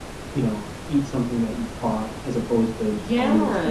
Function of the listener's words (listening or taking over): taking over